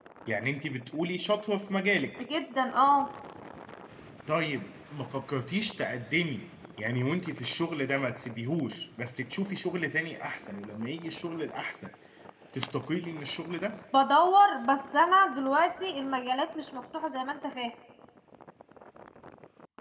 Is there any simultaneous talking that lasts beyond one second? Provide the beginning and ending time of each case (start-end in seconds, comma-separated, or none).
none